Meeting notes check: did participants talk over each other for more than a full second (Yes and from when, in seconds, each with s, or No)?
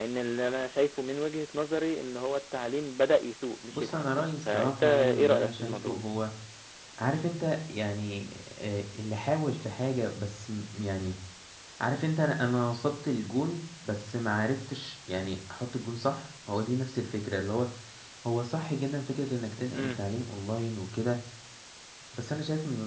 Yes, from 3.7 s